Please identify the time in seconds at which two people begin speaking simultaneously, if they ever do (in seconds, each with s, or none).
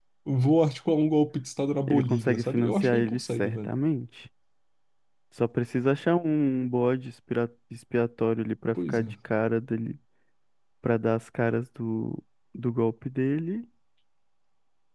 1.9 s